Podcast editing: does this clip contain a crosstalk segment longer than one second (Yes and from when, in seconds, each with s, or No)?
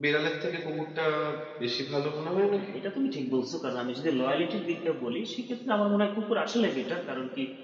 No